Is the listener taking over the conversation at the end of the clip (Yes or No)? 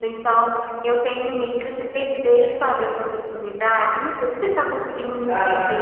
Yes